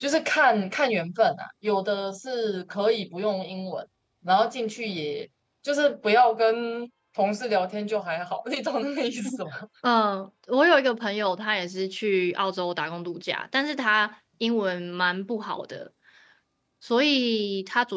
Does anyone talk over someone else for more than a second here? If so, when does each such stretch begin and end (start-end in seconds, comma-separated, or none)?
none